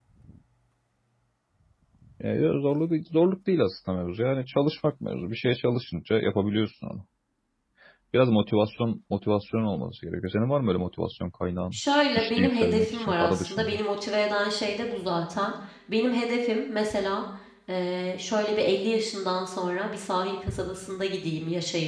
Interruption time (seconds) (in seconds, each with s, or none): 12.2 s